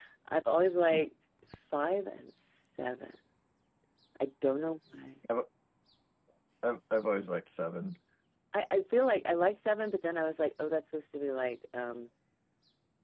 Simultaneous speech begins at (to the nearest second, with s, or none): none